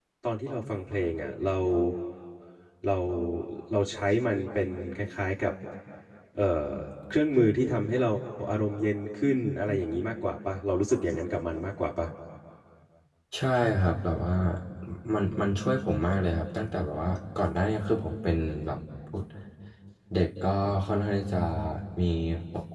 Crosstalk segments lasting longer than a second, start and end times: none

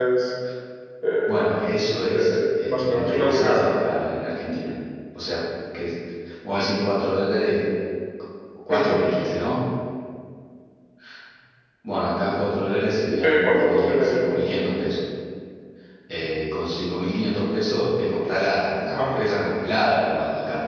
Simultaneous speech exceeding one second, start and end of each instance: 2.1-3.7, 13.2-14.5

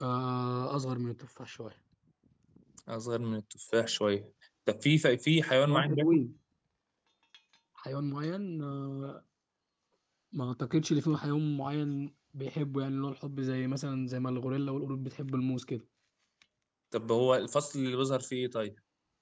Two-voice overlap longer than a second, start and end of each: none

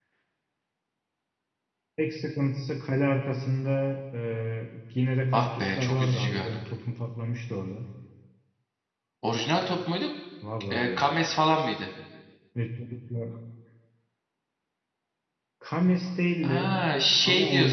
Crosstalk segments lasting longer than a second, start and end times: 5.3-6.6

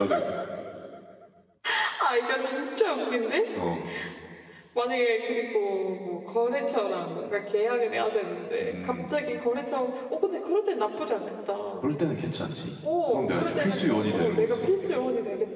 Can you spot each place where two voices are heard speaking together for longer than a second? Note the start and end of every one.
13.1-14.7

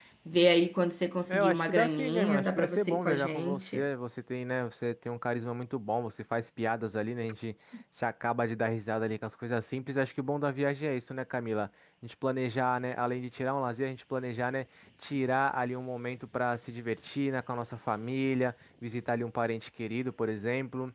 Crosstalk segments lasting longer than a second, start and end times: 1.3-3.8

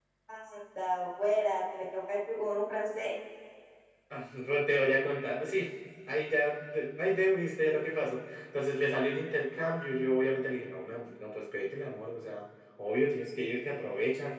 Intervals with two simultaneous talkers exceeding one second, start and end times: none

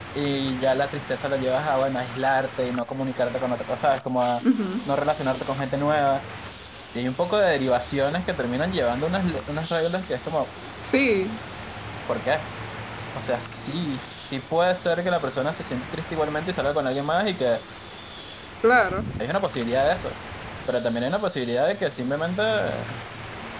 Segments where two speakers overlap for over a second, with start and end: none

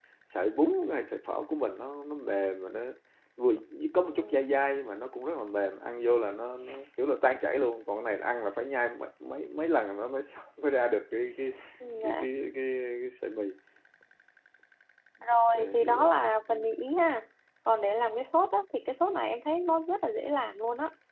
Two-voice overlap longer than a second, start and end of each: 15.3-16.5

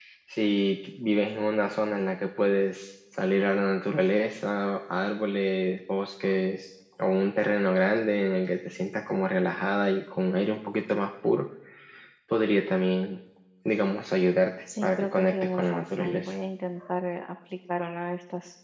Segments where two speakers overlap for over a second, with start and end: 14.8-16.3

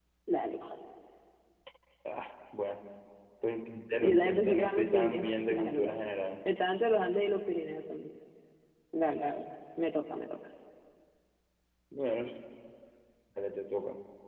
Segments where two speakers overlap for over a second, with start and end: 3.9-5.9

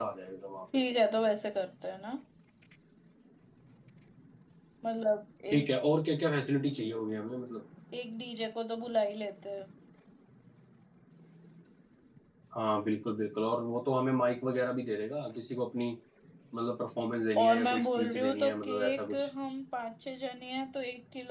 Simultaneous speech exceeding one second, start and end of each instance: 17.4-19.3

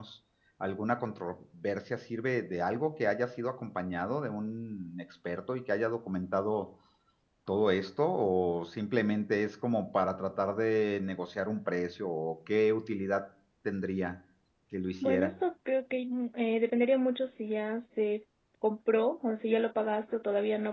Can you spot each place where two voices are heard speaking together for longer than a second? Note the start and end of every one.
none

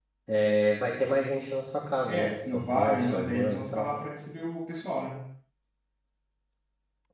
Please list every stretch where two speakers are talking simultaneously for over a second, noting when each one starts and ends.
2.0-3.9

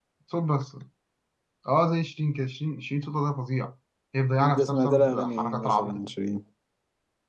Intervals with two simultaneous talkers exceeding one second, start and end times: 4.4-6.1

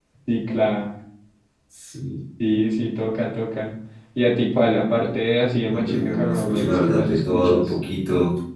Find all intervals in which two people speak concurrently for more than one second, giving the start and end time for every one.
5.7-7.7

